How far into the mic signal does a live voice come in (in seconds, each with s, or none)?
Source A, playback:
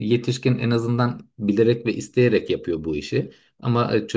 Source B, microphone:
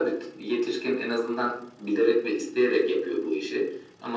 none